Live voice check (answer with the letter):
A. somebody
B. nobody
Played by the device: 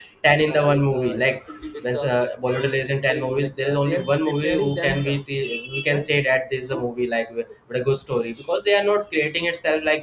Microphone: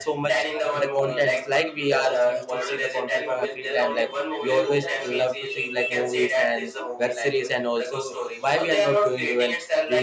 A